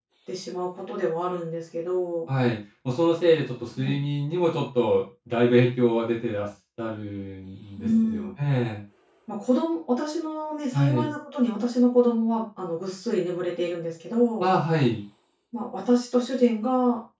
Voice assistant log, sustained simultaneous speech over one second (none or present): none